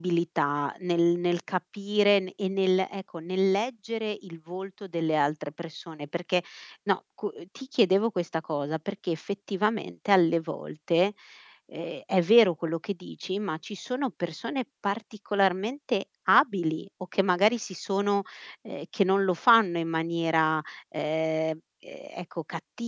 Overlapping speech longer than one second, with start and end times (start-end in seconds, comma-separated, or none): none